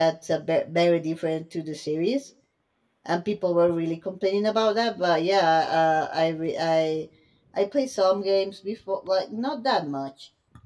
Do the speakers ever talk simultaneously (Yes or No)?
No